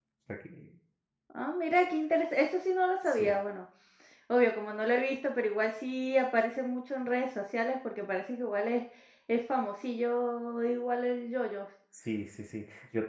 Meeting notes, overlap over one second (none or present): none